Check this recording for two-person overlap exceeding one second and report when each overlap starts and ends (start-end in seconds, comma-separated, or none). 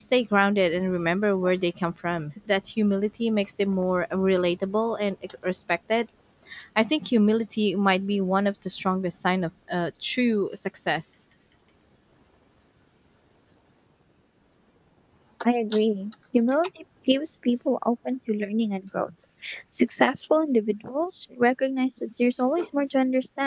none